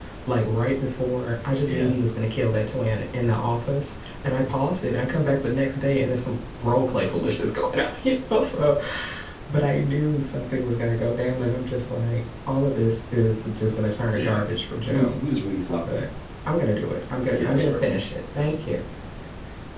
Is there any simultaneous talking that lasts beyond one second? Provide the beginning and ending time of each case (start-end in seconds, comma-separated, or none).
none